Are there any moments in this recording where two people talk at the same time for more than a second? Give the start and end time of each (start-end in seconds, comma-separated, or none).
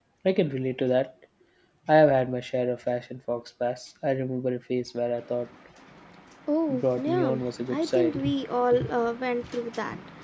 6.7-8.3